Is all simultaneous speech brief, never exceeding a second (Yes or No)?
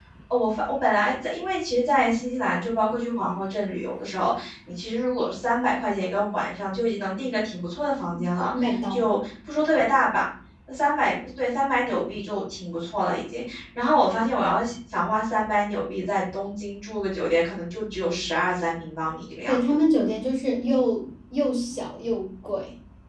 Yes